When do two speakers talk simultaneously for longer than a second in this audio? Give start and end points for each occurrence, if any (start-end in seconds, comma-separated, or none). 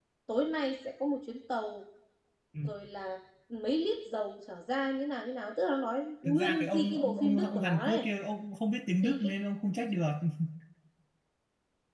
6.2-8.1